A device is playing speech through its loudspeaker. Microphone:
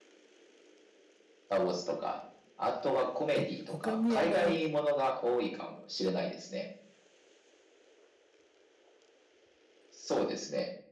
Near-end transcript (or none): え、他にあの、